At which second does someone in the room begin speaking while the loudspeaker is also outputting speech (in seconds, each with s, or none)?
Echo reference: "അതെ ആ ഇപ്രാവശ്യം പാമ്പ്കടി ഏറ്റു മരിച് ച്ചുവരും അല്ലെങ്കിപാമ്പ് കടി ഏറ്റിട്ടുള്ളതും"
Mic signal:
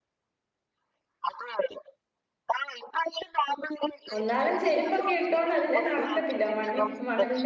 4.2 s